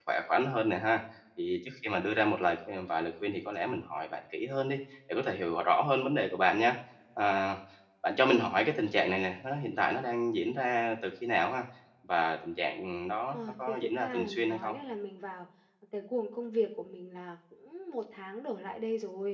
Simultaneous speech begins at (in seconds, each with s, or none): 13.3 s